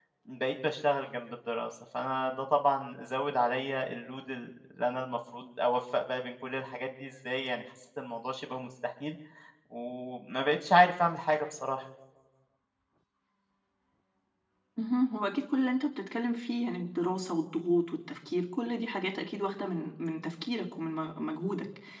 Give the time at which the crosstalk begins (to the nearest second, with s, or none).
none